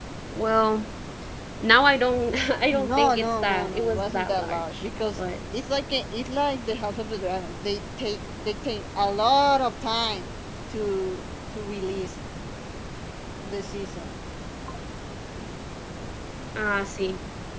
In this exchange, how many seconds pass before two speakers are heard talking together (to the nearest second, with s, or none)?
3 s